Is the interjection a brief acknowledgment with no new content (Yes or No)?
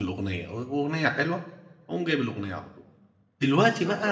Yes